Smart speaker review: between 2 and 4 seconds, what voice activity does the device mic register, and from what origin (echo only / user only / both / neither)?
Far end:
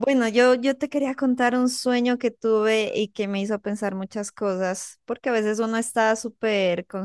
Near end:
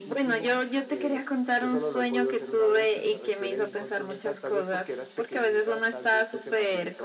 both